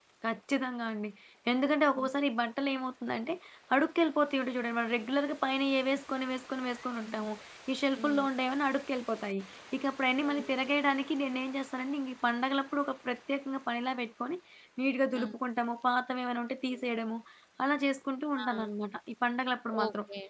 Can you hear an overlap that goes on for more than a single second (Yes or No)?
No